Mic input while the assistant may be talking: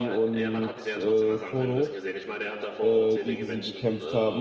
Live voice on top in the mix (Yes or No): Yes